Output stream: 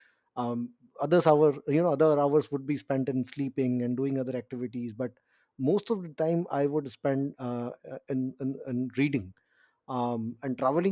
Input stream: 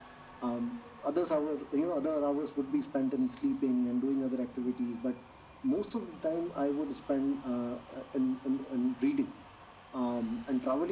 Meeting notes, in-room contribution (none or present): none